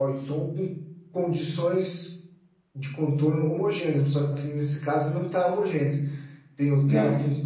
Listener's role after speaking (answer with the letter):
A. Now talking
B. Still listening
B